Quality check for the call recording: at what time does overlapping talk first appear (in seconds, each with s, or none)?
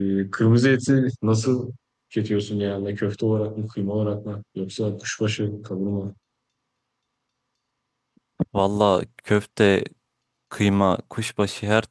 none